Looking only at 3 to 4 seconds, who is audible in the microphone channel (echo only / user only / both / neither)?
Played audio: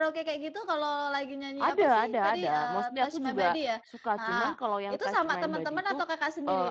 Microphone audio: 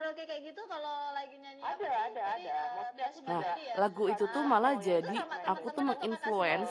both